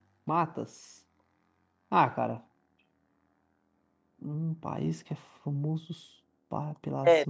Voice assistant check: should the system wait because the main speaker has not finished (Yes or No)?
No